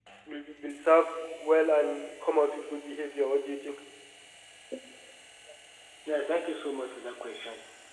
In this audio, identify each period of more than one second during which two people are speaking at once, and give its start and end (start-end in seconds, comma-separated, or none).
none